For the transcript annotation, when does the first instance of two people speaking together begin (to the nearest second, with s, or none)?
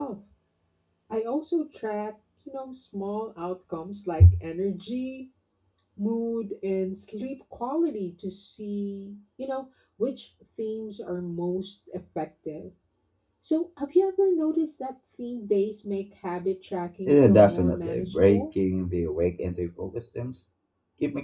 17 s